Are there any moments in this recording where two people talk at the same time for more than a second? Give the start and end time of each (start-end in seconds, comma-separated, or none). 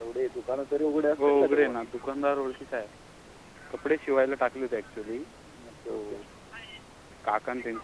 none